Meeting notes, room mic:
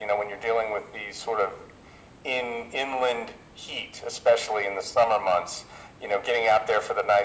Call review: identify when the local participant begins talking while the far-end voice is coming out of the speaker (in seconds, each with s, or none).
none